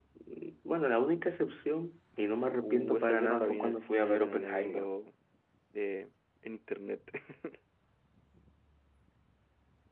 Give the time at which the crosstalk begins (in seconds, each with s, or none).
2.6 s